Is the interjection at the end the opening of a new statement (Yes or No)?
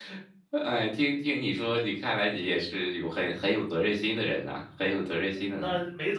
Yes